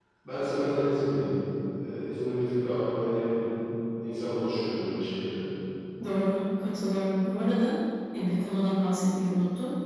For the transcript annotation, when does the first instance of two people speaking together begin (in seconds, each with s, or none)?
none